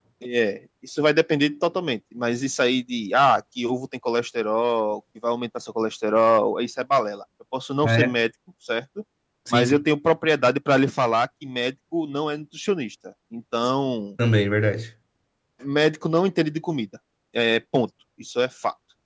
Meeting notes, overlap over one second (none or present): none